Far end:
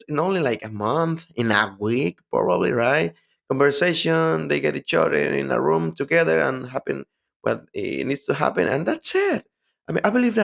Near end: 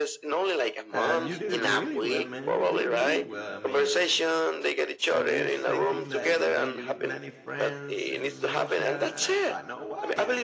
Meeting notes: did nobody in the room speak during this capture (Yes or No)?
No